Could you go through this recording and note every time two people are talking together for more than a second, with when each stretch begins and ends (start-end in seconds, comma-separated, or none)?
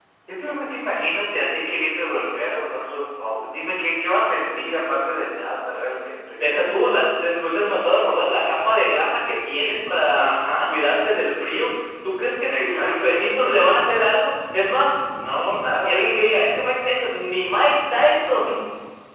12.5-13.7